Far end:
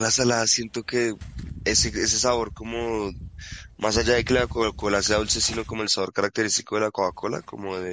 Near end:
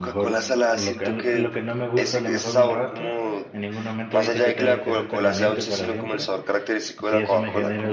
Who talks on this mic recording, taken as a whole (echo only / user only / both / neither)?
both